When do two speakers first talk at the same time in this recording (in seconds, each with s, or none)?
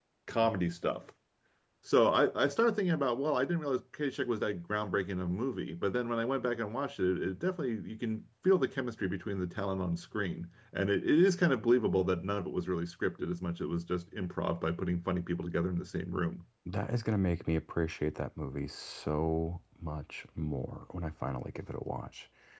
none